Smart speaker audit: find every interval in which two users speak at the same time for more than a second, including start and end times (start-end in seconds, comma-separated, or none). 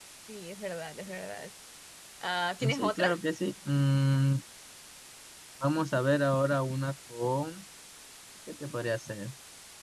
none